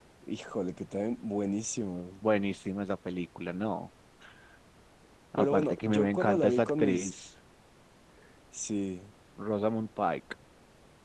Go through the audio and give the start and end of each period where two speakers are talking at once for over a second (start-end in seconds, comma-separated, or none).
5.4-7.2